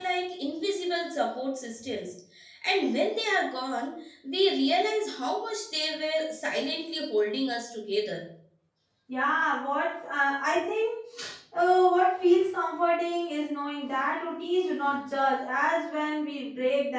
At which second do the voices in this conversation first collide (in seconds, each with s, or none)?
none